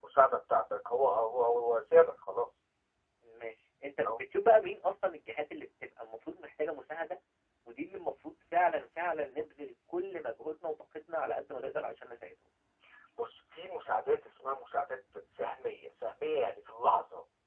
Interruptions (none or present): none